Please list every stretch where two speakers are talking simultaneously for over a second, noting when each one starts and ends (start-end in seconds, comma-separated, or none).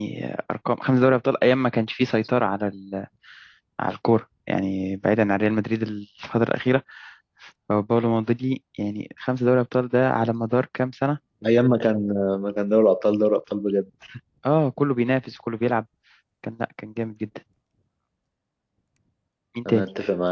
none